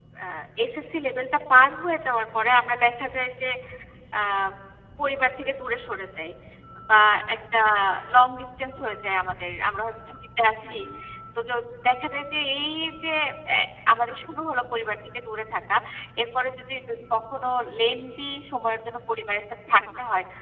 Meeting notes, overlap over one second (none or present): none